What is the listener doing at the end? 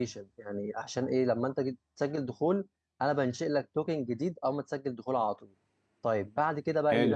taking over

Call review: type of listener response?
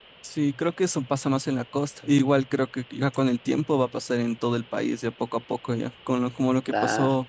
listening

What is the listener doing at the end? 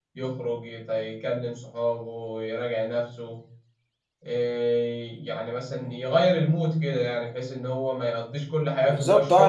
taking over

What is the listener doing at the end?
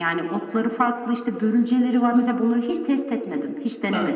taking over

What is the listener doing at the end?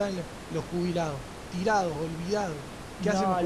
taking over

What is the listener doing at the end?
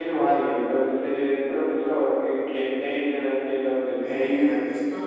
taking over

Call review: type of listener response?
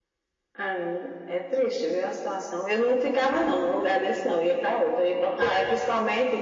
listening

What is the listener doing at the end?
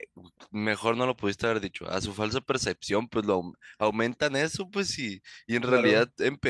listening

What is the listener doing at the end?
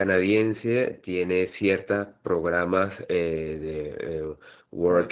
listening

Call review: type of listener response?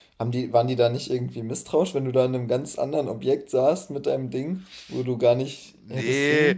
taking over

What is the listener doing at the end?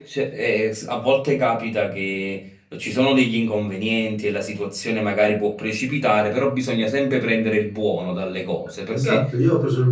taking over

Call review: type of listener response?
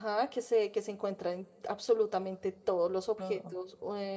listening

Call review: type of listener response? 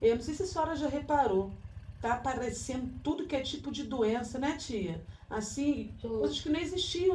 listening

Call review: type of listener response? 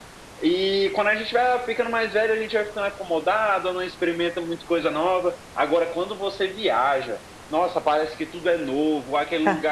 listening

